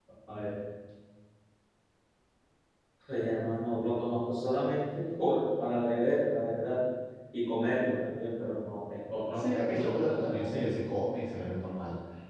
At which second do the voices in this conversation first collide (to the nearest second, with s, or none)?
9 s